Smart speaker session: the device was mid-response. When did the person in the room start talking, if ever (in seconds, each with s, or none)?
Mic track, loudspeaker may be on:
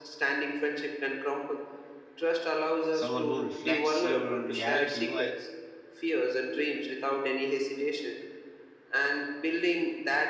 2.9 s